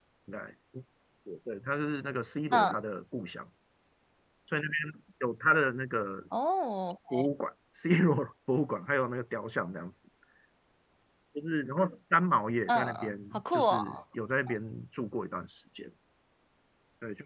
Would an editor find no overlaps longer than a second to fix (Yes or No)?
No